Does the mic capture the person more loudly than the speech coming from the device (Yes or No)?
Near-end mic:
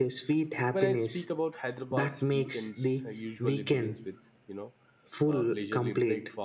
No